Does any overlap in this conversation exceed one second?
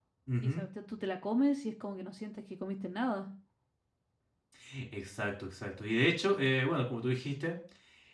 No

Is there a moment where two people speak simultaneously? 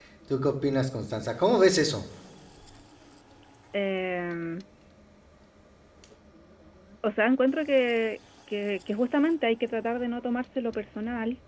No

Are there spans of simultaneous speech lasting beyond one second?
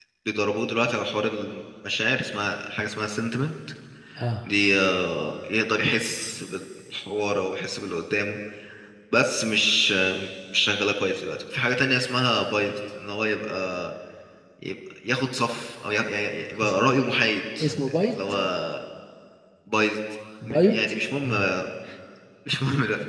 No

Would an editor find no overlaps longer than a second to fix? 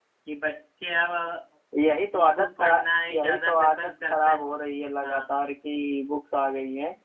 No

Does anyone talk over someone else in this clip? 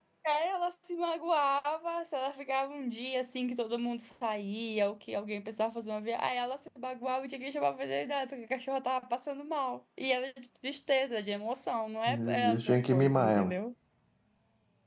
Yes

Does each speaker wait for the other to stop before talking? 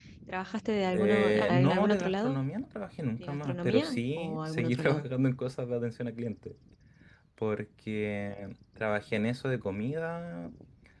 No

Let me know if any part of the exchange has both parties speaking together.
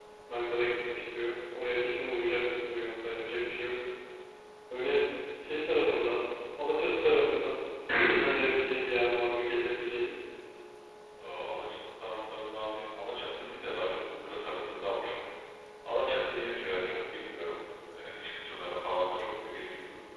No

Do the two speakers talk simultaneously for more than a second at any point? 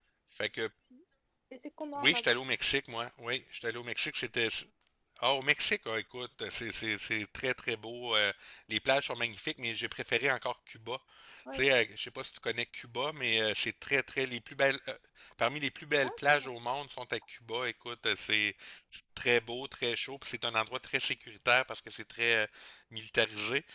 No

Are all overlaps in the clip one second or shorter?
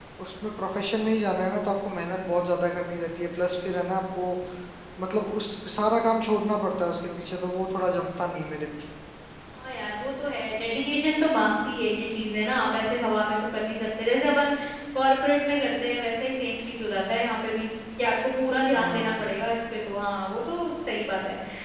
Yes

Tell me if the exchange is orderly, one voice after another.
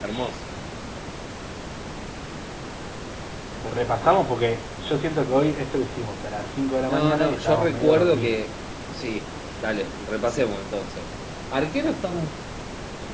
No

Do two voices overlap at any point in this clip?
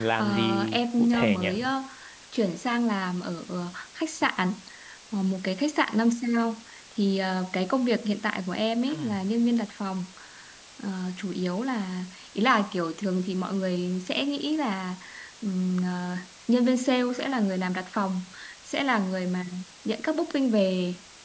Yes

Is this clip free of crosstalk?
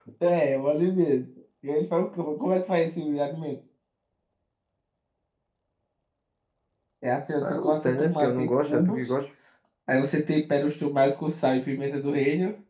No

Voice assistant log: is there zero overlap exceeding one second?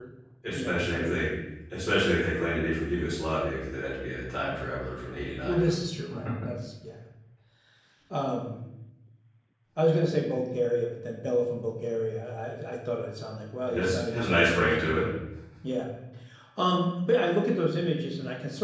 No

